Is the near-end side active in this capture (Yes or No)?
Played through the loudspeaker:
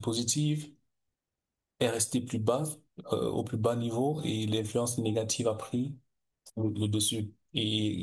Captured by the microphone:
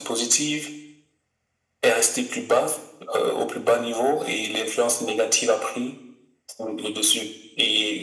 No